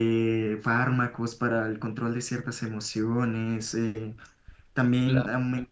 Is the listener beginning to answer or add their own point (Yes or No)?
No